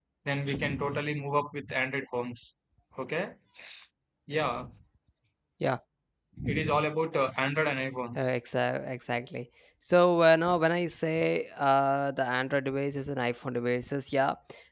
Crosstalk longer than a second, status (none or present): none